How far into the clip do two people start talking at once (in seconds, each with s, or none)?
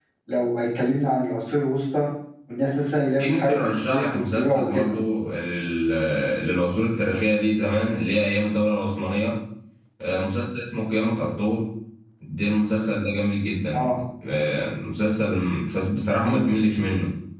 3.2 s